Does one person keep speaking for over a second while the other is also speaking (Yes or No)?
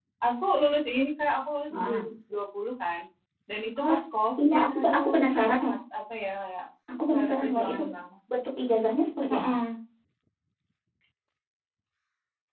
Yes